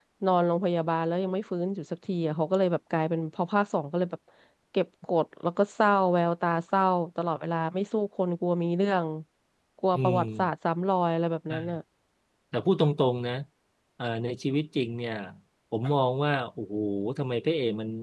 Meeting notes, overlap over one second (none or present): none